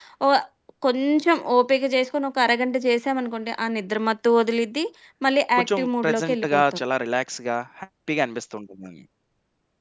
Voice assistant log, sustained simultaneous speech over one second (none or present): present